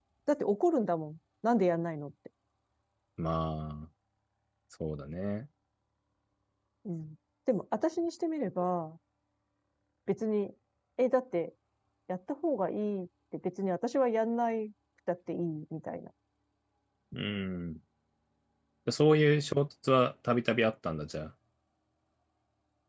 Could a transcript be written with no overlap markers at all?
Yes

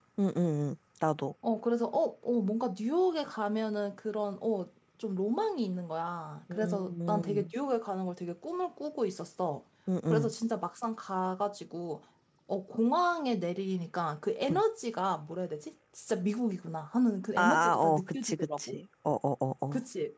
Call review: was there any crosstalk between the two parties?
Yes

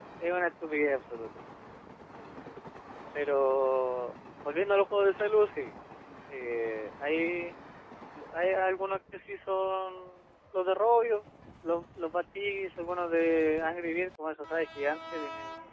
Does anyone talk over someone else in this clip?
No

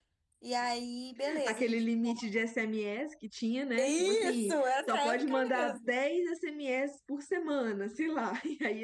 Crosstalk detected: Yes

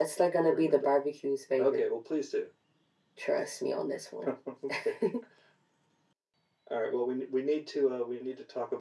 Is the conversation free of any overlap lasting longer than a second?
Yes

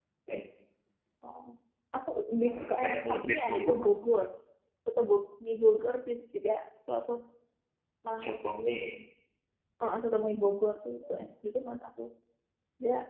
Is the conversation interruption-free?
No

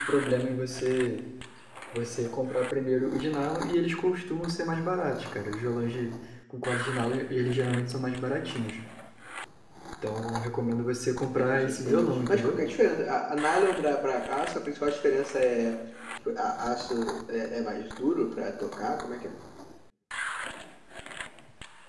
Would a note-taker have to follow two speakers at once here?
Yes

